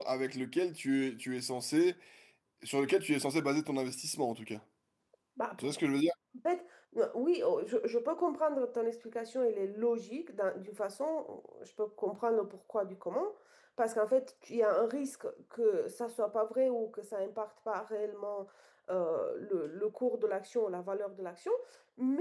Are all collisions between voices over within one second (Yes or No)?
Yes